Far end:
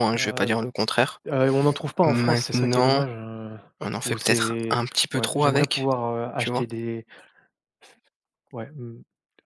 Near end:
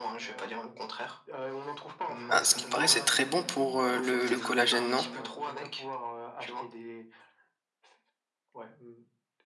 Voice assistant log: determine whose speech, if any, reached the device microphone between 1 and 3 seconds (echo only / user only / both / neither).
both